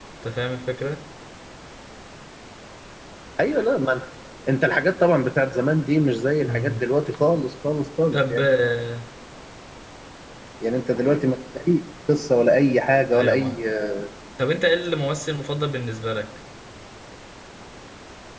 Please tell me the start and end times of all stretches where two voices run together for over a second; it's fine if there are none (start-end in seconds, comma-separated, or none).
none